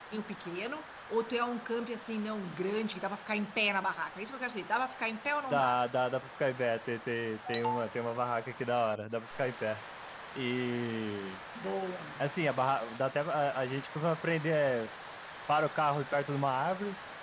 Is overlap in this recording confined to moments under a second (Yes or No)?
Yes